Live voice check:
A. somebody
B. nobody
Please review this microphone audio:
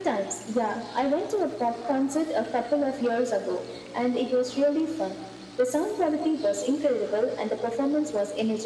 B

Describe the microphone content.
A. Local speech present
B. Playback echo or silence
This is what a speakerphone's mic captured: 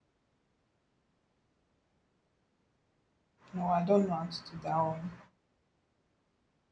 A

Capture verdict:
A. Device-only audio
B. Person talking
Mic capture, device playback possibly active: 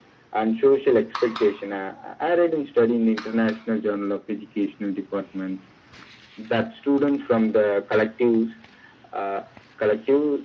A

